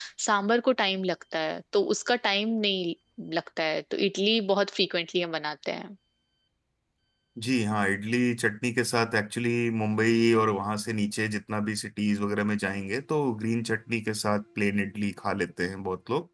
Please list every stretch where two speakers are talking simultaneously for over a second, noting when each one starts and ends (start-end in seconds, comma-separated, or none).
none